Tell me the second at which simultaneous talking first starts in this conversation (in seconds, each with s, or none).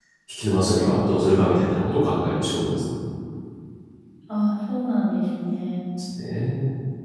none